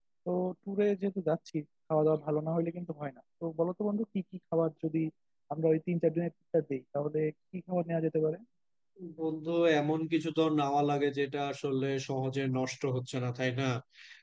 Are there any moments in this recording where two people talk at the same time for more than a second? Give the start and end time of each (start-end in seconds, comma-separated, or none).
none